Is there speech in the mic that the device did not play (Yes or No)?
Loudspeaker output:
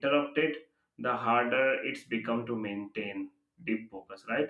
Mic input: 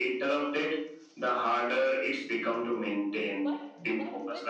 Yes